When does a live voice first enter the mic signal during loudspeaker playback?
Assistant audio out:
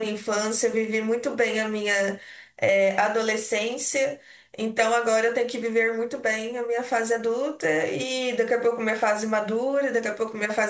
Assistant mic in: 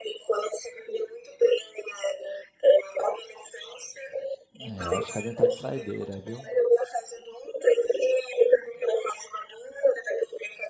4.6 s

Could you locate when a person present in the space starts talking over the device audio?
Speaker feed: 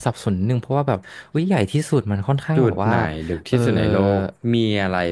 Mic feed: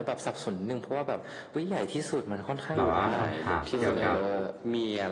2.8 s

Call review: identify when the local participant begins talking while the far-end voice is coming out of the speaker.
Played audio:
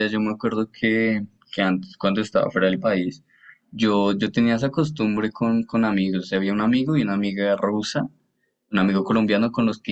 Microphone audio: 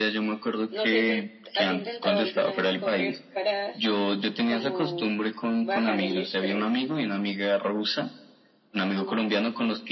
0.7 s

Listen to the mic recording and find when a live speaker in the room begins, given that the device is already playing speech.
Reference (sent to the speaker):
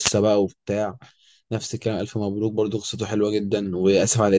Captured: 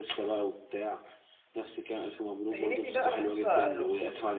2.5 s

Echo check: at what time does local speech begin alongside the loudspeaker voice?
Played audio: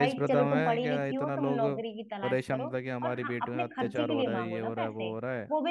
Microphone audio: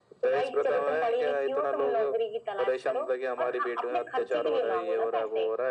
none

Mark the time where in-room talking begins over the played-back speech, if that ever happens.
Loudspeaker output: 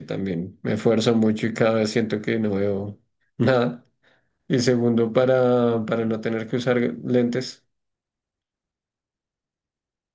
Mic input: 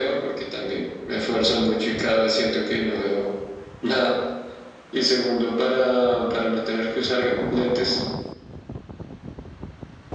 none

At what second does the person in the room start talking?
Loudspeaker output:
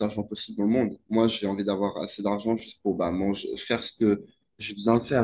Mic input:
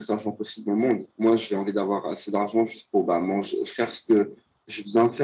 none

